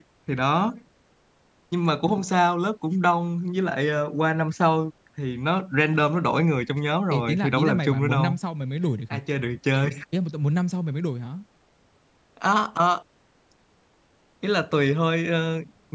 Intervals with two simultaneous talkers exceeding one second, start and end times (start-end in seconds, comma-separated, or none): 7.1-8.4